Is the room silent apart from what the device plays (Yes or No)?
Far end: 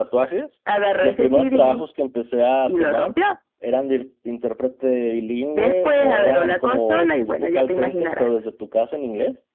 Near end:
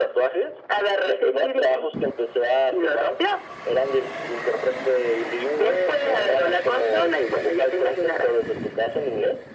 Yes